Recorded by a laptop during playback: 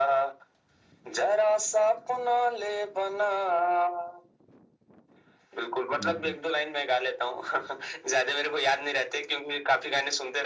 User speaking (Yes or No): Yes